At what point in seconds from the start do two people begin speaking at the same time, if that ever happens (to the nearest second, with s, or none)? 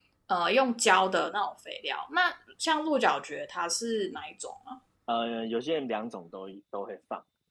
none